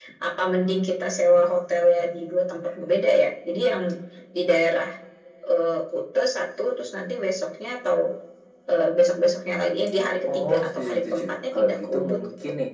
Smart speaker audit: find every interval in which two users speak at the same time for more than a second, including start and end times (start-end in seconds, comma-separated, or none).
10.3-12.2